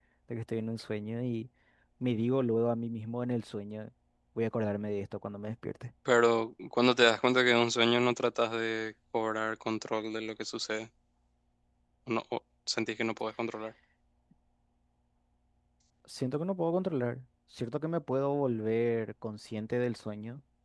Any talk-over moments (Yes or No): No